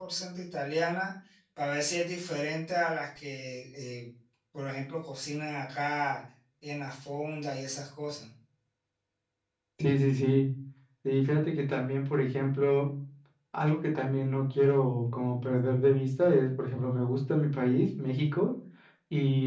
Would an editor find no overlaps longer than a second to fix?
Yes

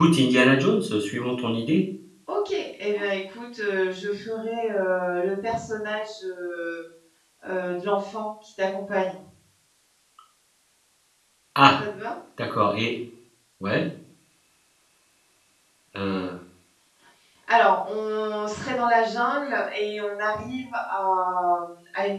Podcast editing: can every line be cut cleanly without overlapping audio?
Yes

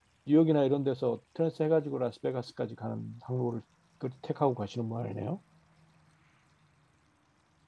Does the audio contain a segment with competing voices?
No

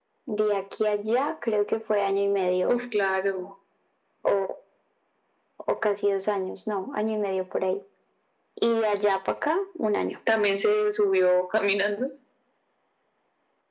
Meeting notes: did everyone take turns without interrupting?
Yes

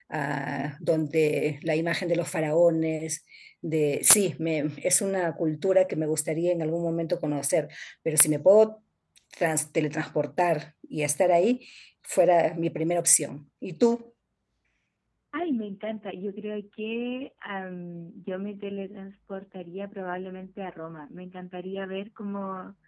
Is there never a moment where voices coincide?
Yes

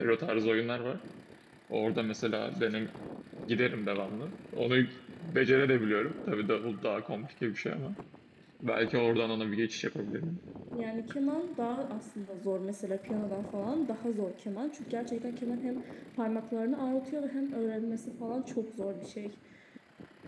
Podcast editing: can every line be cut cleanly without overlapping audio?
Yes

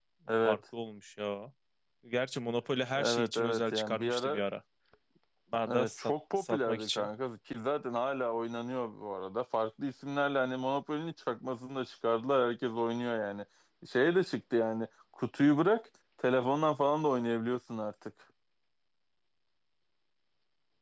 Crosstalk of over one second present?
Yes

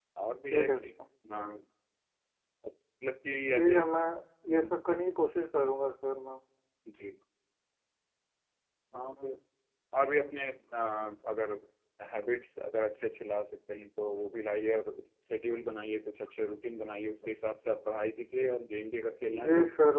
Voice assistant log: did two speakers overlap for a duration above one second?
No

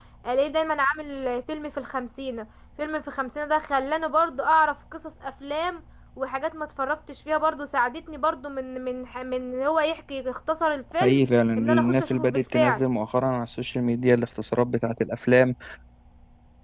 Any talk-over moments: Yes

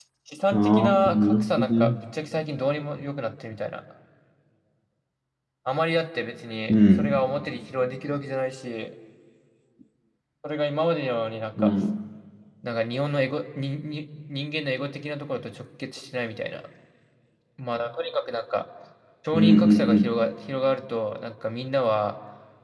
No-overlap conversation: No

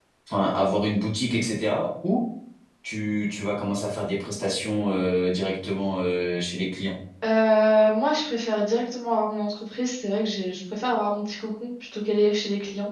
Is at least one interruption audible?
No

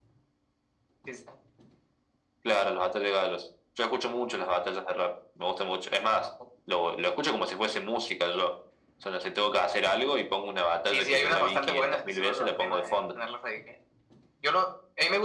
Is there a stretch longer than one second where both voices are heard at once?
Yes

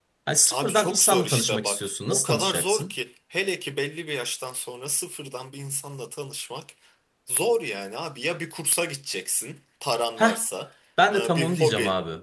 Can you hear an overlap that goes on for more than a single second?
Yes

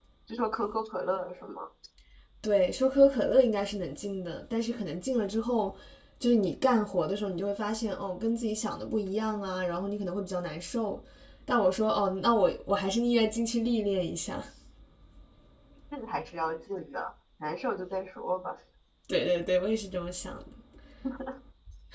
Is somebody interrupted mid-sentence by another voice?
No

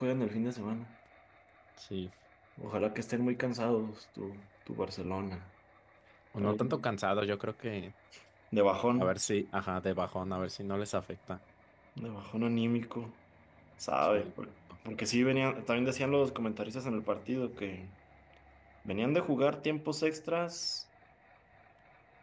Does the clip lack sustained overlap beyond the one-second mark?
Yes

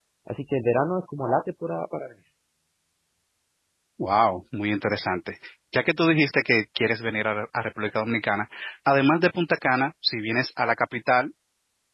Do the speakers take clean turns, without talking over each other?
Yes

